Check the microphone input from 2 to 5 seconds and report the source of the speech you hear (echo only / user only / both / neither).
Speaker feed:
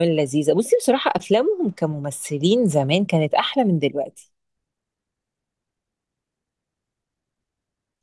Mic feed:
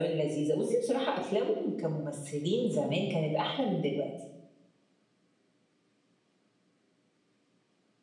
echo only